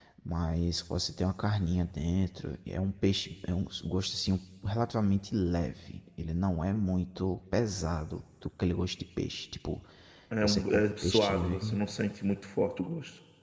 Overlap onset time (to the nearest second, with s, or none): 10 s